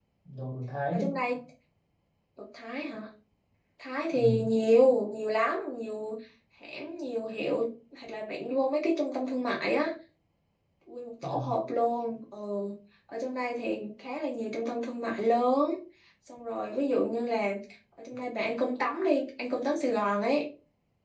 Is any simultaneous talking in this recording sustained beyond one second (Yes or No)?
No